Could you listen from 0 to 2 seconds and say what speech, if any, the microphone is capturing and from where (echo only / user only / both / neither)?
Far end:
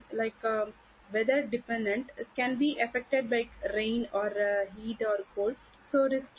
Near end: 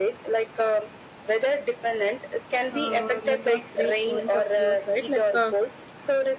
echo only